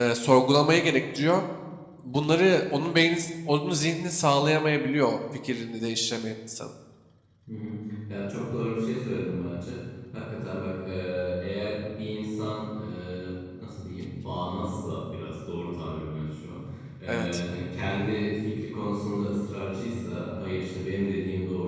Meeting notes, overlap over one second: none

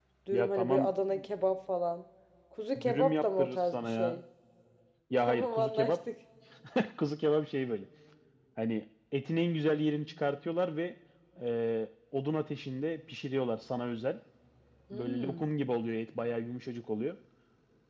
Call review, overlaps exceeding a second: present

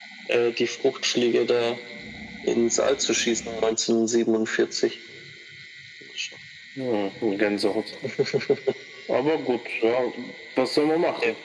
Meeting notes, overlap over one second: none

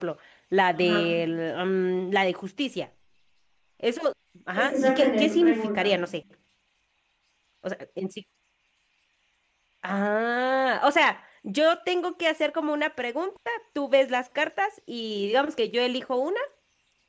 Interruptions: present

